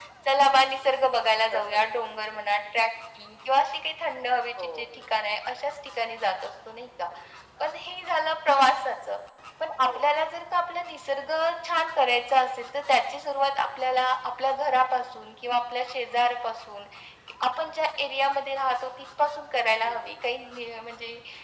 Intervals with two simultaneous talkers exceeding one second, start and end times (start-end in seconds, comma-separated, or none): none